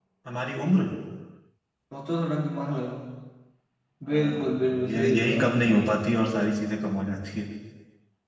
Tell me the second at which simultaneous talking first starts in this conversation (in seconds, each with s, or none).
4.1 s